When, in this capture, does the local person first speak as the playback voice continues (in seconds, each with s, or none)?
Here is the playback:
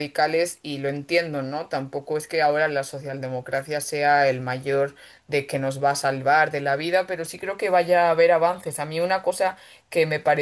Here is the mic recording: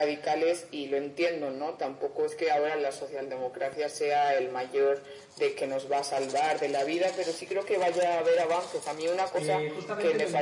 9.3 s